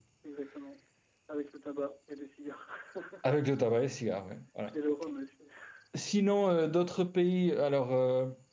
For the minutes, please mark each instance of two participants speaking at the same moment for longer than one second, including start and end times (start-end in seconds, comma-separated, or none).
none